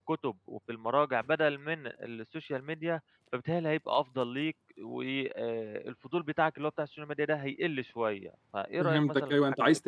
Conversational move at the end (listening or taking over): taking over